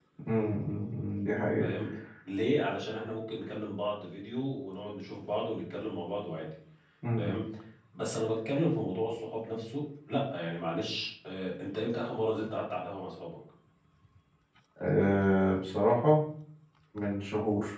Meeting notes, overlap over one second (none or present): none